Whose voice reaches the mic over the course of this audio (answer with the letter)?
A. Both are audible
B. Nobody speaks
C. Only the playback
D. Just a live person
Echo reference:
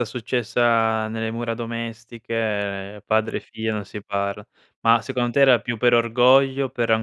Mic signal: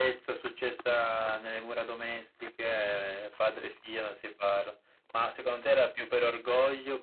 C